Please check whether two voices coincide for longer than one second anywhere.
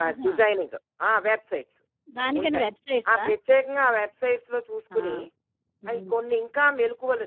No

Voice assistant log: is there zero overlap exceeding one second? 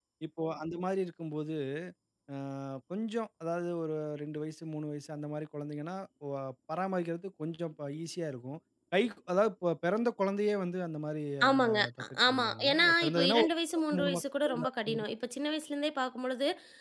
No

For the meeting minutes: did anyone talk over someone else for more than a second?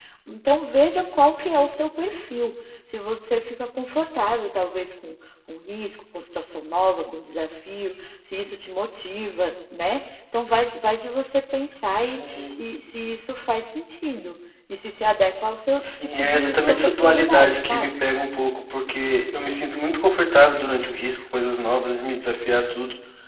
Yes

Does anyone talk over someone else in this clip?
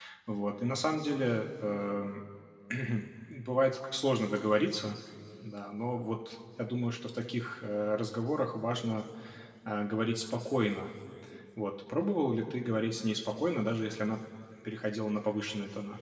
No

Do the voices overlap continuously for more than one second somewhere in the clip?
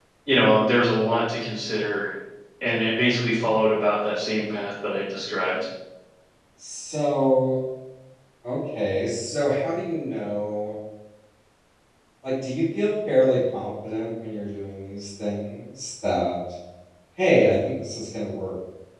No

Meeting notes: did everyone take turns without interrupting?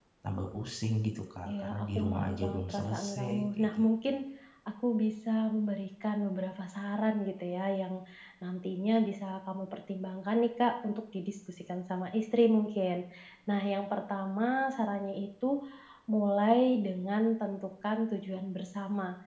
No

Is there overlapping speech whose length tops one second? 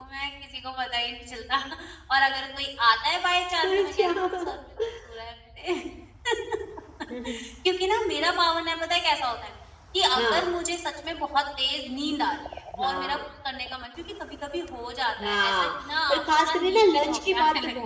Yes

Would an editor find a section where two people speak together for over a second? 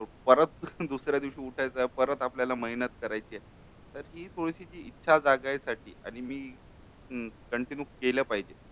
No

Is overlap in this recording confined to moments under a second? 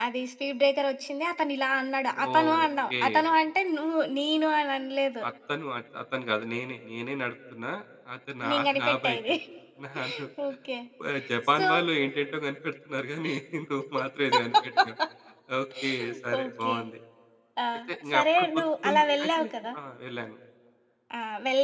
No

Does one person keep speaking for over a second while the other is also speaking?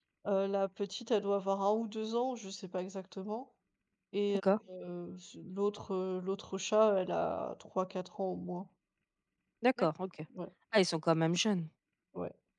No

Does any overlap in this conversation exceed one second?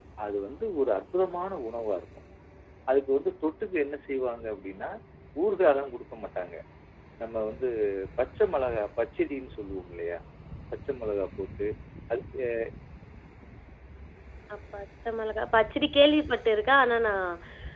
No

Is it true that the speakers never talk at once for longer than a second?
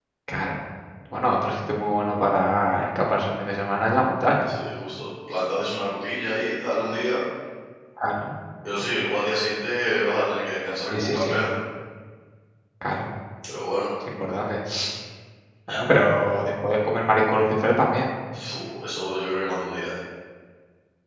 Yes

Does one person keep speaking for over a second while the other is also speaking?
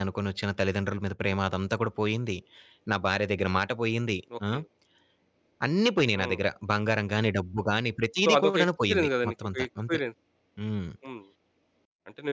Yes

